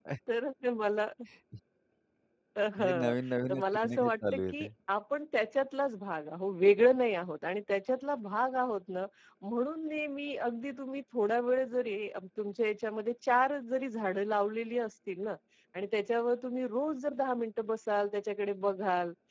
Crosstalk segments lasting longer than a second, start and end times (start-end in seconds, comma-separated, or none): 3.5-4.7